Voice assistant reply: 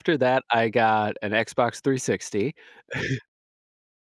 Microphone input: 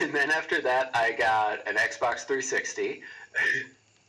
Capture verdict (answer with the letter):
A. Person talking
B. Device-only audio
B